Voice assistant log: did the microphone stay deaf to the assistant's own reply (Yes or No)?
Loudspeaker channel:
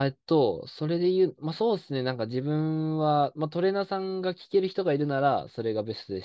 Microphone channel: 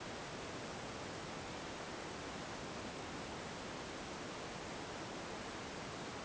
Yes